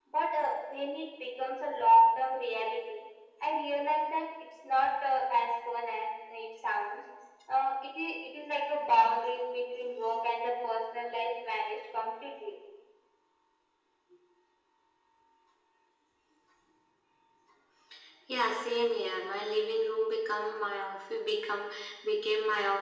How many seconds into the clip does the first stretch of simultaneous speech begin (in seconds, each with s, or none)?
none